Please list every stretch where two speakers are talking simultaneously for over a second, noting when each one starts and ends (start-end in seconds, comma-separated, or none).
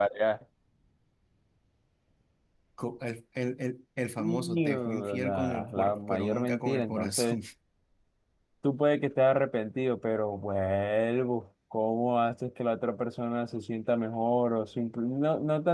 4.2-7.4